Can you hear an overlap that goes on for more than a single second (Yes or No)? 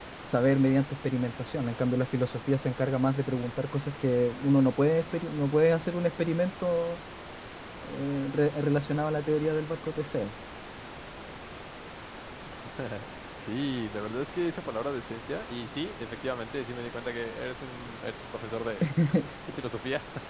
No